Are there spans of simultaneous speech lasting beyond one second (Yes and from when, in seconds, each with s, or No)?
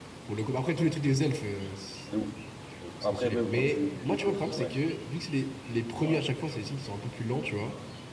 Yes, from 3.0 s